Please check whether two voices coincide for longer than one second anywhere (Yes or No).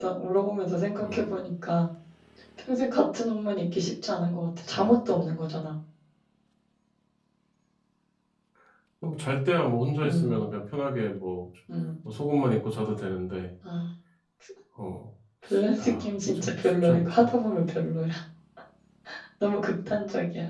Yes